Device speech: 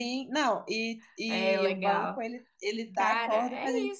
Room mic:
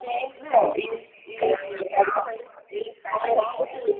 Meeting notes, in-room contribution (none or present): none